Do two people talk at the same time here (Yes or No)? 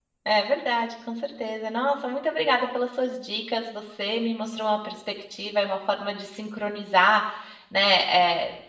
No